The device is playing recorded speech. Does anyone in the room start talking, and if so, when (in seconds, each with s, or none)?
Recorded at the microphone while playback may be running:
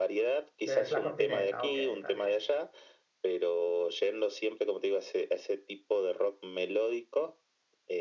0.6 s